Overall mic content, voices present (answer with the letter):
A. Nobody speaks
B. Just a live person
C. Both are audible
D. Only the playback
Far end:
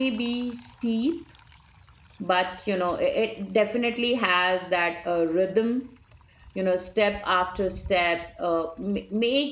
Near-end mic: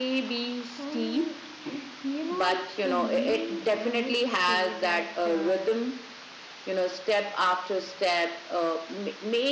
C